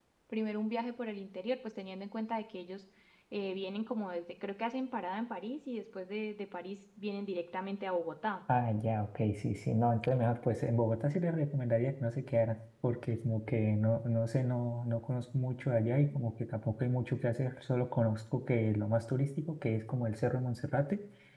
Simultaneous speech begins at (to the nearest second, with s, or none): none